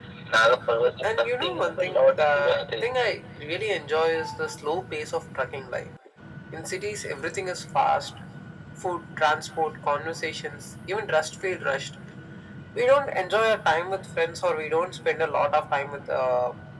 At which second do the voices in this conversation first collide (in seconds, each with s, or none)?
1.1 s